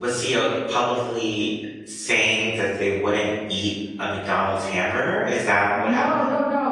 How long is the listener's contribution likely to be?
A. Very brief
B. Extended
B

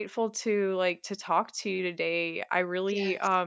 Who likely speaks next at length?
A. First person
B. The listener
A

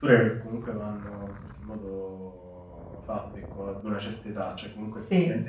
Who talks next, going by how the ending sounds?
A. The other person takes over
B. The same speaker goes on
B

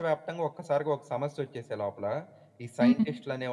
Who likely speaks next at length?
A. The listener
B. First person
B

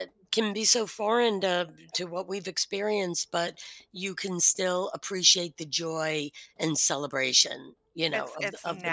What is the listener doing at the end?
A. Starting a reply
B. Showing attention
A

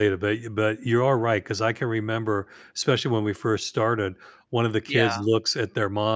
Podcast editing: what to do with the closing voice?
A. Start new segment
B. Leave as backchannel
B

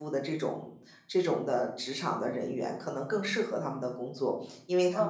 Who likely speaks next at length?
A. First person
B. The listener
B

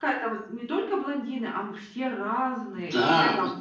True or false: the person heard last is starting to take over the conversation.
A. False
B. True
B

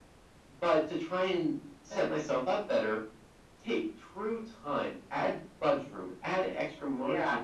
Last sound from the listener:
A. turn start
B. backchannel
B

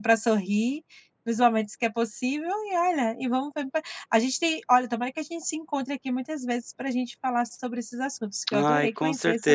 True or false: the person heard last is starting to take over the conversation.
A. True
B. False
A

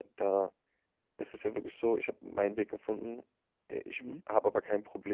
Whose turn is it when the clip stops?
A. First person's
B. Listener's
A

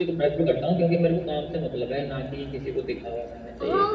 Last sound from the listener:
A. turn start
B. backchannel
A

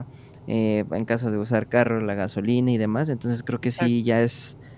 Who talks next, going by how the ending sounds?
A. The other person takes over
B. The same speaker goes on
B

